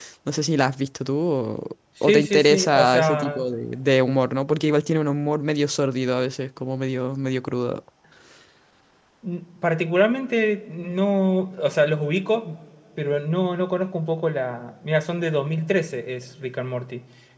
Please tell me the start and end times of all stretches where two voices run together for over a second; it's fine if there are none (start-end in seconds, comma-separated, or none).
2.0-3.4